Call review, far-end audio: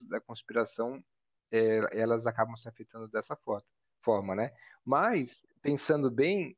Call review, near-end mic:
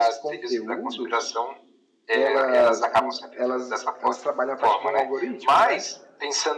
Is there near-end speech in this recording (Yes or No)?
Yes